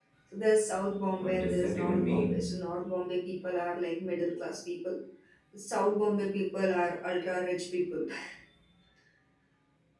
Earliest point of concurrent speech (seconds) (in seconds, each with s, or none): 1.2 s